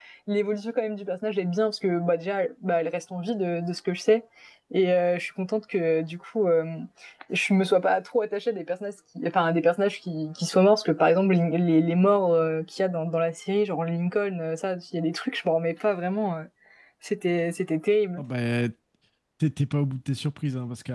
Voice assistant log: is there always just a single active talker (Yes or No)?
Yes